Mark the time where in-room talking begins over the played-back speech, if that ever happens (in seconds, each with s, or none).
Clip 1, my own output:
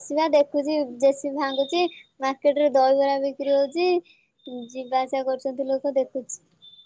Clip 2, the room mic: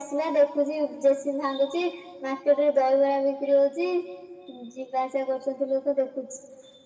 none